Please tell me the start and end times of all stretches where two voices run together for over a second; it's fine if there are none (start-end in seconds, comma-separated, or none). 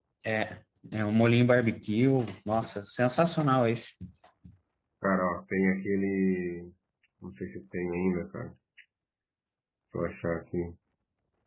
none